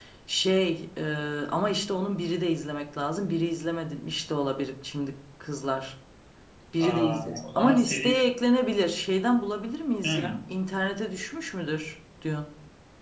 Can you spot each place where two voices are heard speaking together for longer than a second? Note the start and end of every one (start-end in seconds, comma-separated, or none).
6.8-8.1